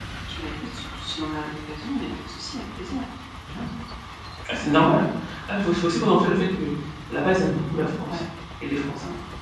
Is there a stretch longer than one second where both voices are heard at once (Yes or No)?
No